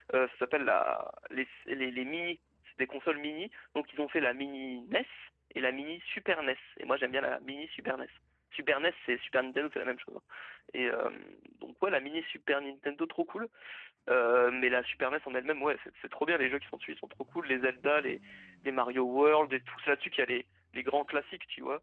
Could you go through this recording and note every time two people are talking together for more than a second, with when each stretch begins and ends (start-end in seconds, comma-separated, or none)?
none